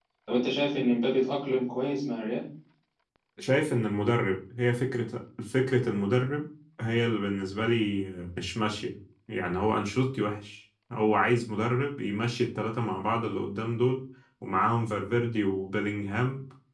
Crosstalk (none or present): none